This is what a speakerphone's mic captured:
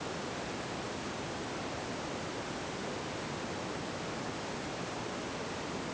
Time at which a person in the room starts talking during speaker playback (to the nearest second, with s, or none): none